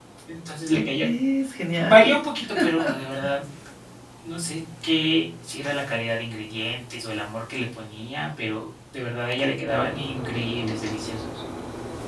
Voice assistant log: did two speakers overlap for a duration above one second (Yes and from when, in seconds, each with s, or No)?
No